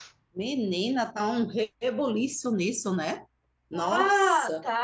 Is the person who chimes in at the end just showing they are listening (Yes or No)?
No